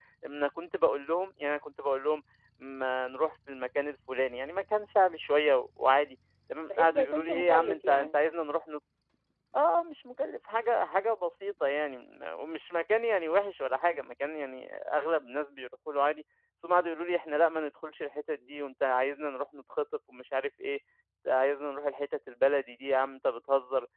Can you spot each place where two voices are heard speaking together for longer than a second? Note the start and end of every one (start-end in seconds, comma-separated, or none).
6.7-8.2